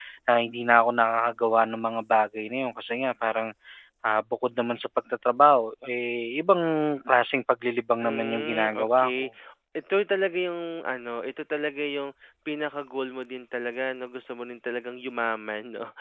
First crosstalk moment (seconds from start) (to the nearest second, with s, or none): 8 s